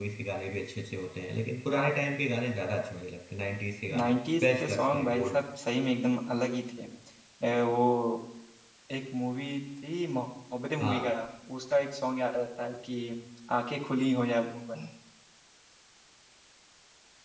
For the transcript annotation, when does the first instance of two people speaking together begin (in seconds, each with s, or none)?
4.0 s